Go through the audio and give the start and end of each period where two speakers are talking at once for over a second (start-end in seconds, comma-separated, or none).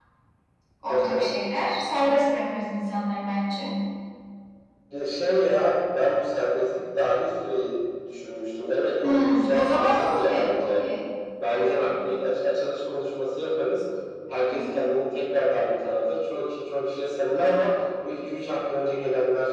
9.0-10.7